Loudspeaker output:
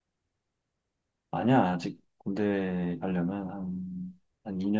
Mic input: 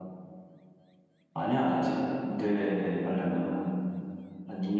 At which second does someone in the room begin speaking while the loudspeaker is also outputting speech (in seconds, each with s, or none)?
none